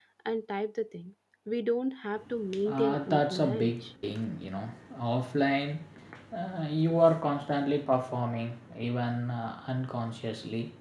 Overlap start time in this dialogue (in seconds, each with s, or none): 2.5 s